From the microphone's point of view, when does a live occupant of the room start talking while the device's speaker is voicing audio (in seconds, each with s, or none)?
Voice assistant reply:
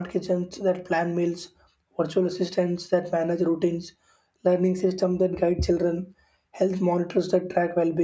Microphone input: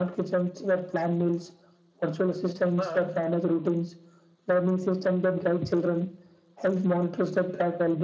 2.6 s